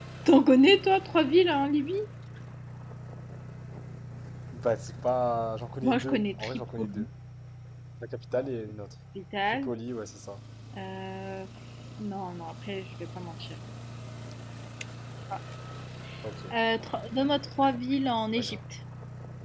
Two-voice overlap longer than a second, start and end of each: 5.8-7.1

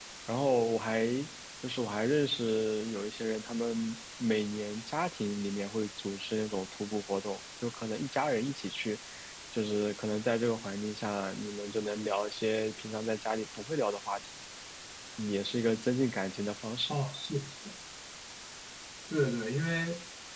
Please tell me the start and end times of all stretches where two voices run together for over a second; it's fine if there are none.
none

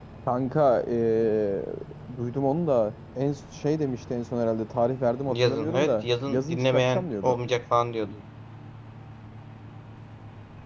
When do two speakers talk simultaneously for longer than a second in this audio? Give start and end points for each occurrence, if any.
5.3-7.4

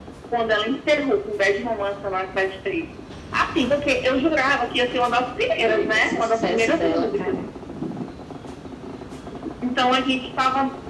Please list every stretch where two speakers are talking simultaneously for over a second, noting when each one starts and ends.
5.7-7.4

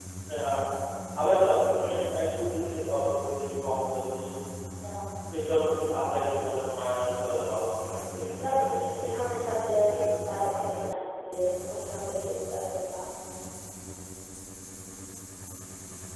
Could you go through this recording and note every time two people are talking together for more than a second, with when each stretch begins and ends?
8.4-10.8

